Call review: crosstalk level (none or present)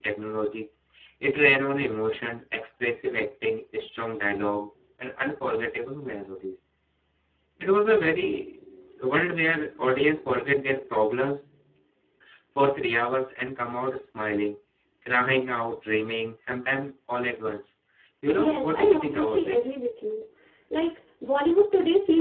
present